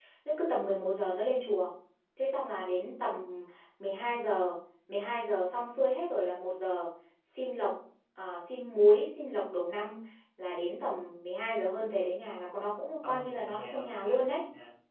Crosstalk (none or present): present